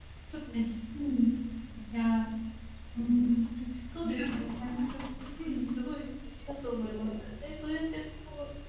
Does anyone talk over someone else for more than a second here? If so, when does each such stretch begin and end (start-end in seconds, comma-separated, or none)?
none